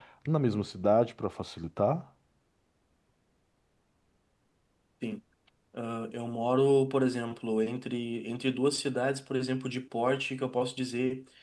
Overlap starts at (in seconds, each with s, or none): none